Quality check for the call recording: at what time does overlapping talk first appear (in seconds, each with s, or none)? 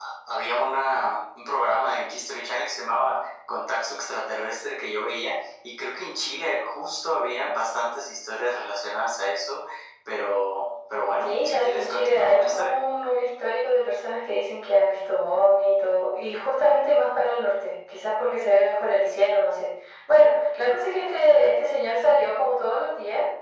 11.2 s